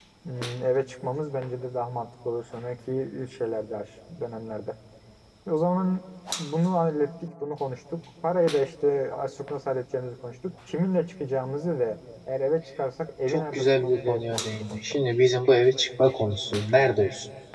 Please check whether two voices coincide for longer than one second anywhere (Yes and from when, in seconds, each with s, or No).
Yes, from 13.3 s